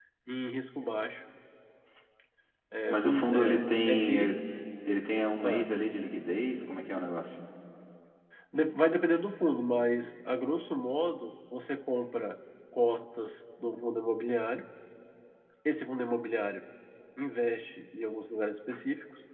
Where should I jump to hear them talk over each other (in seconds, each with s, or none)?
2.9 s